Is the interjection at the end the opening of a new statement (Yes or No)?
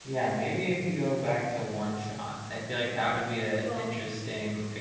No